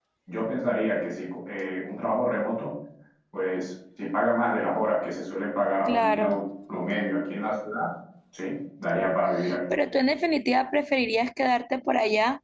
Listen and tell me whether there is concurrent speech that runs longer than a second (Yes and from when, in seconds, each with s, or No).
No